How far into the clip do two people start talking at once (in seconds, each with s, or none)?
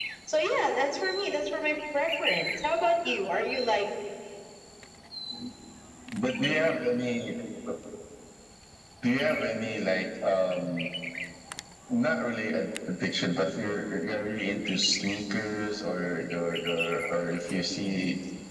none